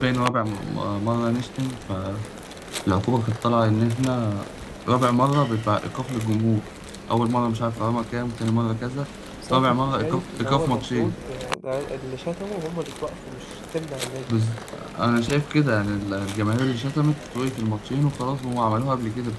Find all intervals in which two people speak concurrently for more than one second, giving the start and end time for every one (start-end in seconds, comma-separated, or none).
9.5-11.1